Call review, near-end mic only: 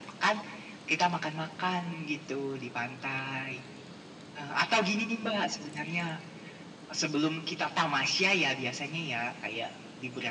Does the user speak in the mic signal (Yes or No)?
No